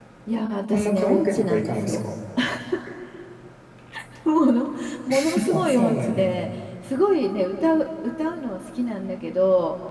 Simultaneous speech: Yes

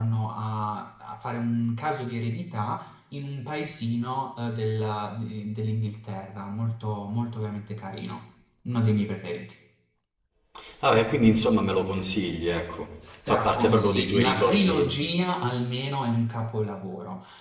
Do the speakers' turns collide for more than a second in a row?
Yes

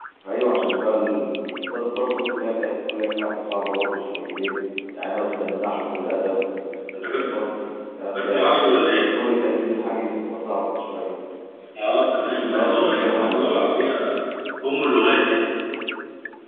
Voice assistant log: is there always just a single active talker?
No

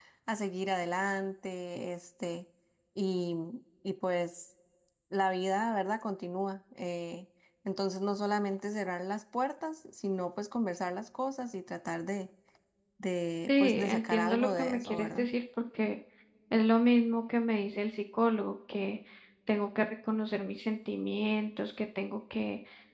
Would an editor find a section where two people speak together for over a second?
Yes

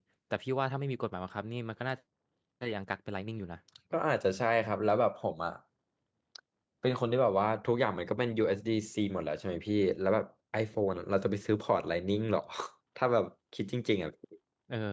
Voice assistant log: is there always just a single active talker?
Yes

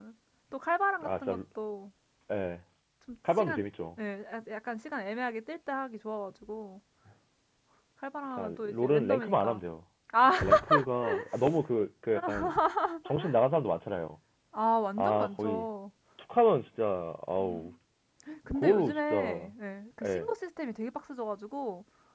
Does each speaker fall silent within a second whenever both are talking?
No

